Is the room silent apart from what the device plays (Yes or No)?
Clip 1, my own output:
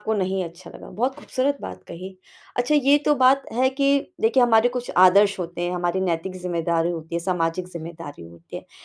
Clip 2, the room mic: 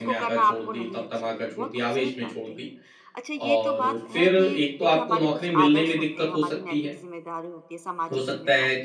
No